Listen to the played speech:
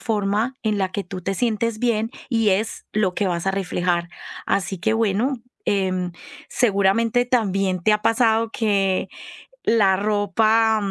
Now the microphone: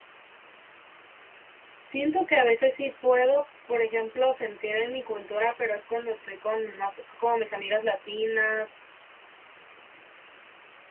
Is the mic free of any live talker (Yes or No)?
No